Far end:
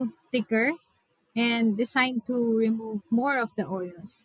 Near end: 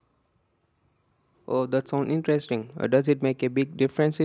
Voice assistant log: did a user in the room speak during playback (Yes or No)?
Yes